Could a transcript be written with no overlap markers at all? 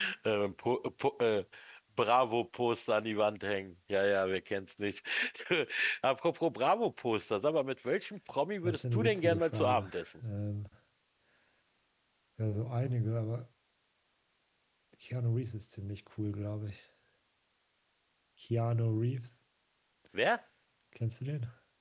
No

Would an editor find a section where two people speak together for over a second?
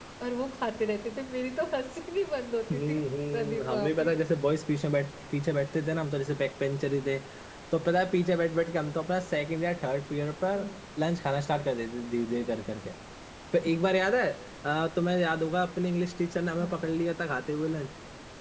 Yes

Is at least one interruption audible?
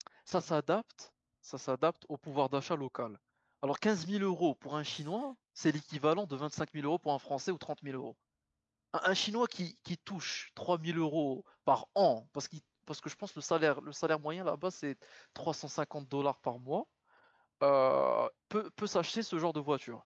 No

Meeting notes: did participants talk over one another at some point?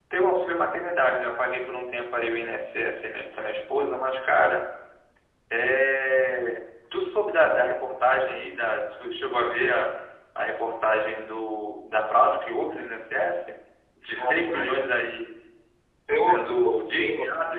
Yes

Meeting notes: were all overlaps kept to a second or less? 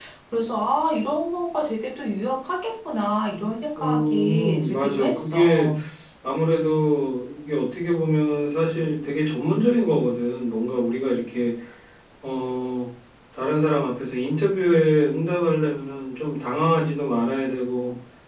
No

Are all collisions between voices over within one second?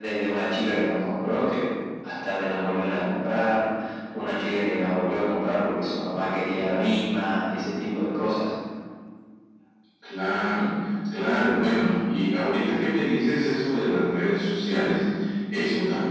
Yes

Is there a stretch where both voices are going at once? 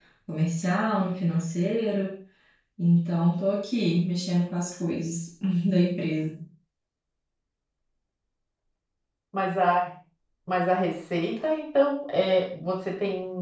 No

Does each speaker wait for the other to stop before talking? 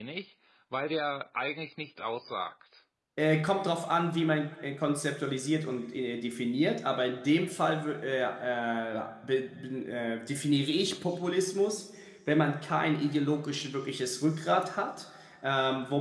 Yes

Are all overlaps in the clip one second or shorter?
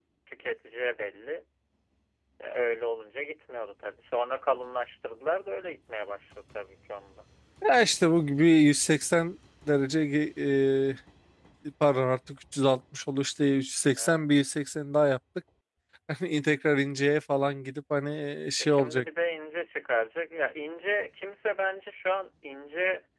Yes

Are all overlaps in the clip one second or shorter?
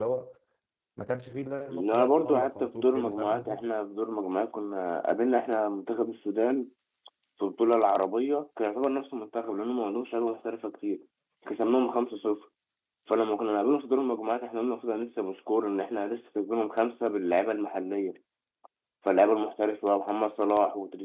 No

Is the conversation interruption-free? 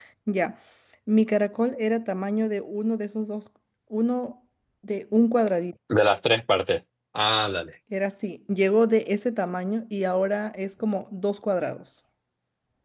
Yes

